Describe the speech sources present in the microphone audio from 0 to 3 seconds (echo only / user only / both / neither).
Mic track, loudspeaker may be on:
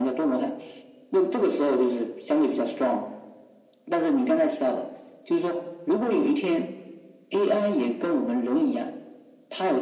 echo only